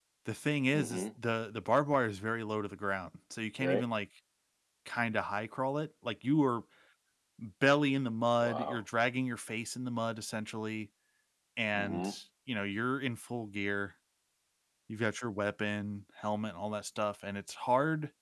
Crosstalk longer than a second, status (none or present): none